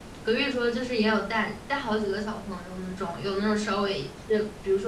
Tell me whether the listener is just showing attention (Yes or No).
Yes